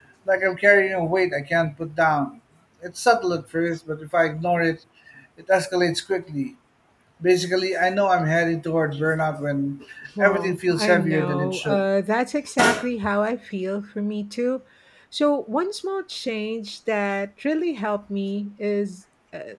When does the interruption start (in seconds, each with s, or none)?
10.2 s